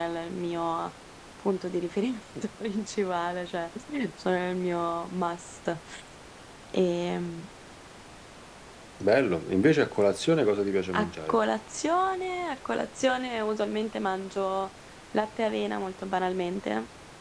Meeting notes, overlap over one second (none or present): none